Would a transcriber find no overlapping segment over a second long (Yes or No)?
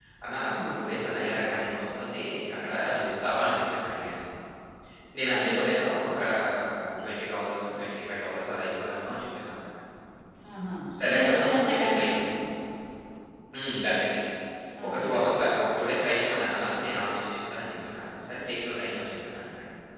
No